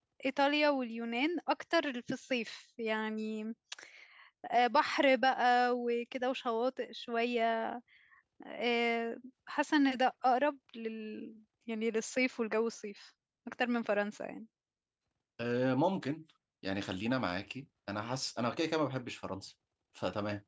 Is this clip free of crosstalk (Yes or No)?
Yes